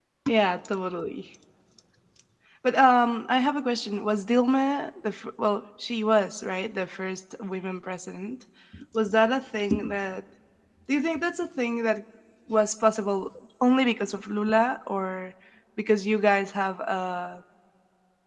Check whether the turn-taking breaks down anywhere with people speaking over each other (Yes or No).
No